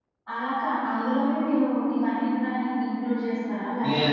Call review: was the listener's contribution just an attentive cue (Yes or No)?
No